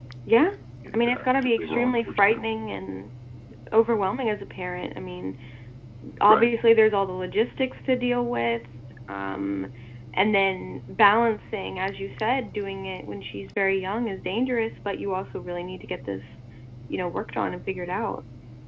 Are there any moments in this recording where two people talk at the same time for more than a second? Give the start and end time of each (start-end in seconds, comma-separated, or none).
0.9-2.4